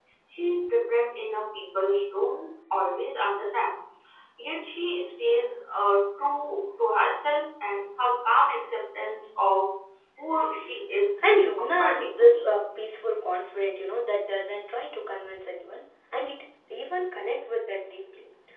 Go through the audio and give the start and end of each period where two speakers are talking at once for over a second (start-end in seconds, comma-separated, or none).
11.2-12.5